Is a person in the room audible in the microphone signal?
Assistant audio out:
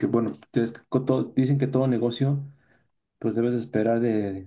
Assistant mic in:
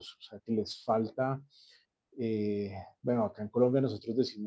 Yes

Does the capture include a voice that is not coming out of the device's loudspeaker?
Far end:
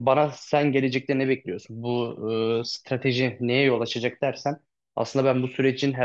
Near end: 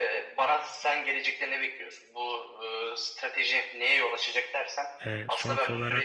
Yes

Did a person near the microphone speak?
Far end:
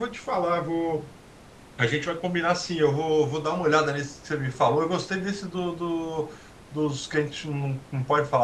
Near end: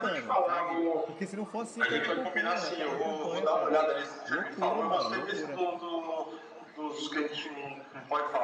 Yes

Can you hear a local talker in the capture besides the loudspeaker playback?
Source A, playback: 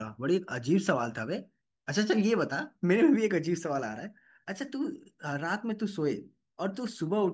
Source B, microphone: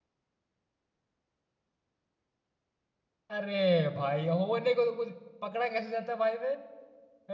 Yes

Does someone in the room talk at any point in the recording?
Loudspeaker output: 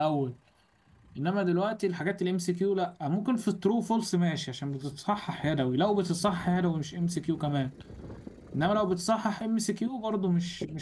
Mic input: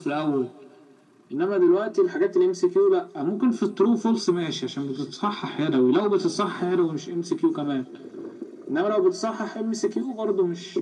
No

